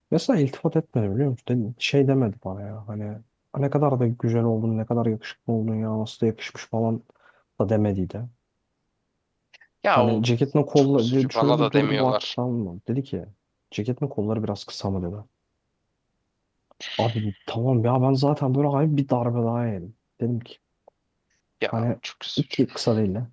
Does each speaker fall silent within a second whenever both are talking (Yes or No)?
No